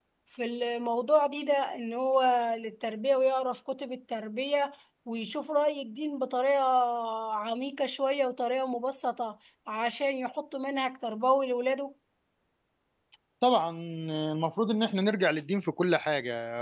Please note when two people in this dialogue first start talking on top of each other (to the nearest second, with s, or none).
none